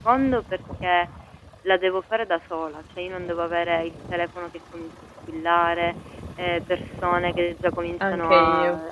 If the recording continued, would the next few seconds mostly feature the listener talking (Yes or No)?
No